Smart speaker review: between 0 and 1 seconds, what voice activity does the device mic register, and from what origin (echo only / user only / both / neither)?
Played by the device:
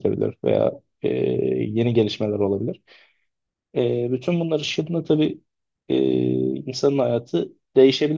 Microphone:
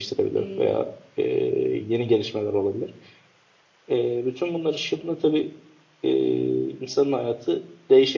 both